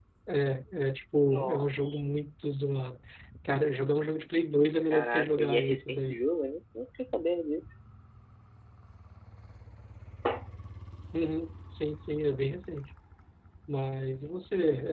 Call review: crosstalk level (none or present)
present